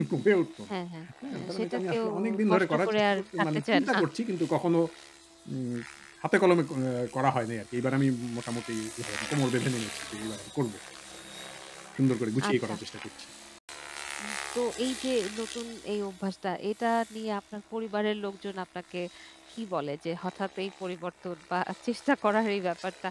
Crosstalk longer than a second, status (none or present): present